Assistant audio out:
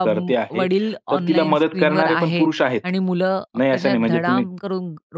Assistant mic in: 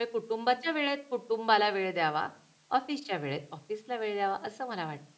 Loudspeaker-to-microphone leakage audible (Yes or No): No